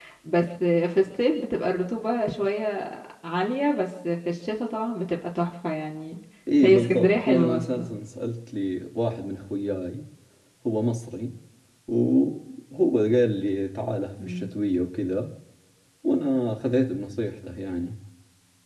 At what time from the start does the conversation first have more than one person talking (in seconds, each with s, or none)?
6.6 s